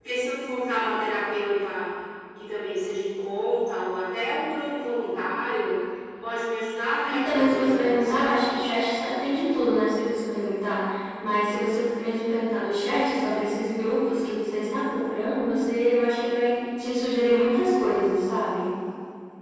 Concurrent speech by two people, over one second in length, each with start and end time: 7.1-8.4

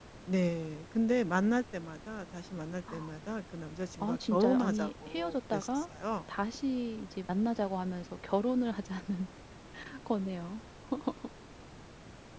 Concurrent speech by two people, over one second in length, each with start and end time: 4.0-5.8

